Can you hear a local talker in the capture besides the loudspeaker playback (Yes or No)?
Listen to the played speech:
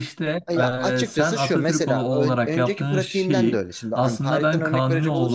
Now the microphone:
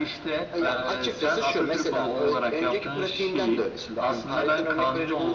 No